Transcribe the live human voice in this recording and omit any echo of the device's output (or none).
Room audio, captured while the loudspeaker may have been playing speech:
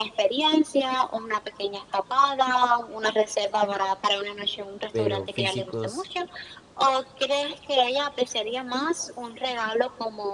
pero físicos